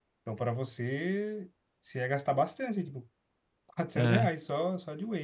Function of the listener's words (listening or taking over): listening